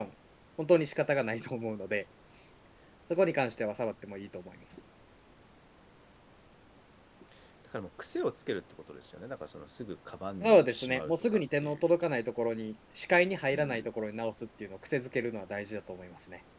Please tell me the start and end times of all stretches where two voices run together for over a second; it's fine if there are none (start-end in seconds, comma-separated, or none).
10.4-11.8